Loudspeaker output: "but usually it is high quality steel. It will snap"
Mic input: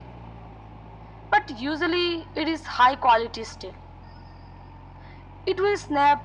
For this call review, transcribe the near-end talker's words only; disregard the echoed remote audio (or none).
none